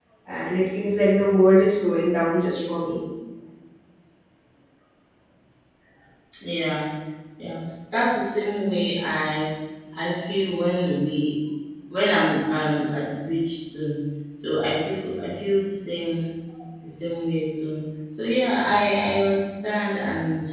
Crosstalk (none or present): none